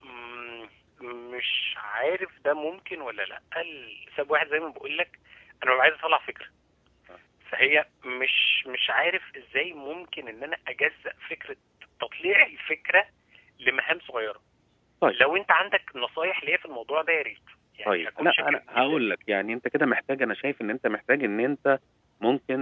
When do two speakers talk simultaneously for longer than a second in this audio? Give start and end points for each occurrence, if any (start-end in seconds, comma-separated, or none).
17.9-19.1